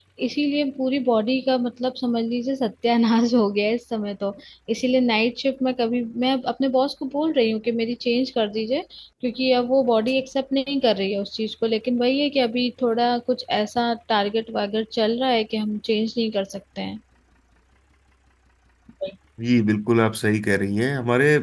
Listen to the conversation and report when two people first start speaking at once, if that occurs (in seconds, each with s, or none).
none